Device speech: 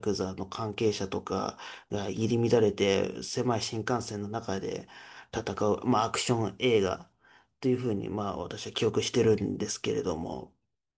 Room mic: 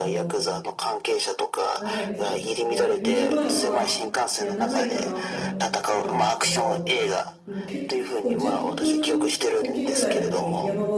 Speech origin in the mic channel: both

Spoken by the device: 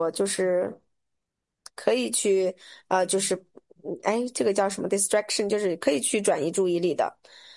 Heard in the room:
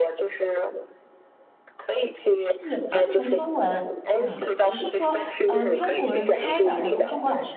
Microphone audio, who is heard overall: both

